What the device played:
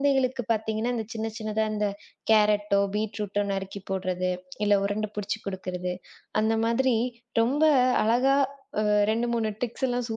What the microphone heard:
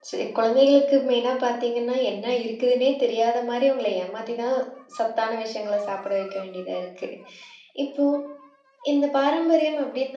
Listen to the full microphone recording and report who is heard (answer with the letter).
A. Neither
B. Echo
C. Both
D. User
D